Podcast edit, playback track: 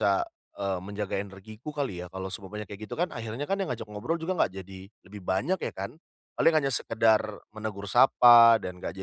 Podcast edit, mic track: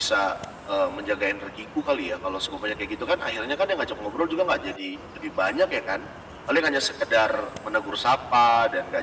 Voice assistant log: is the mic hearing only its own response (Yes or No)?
Yes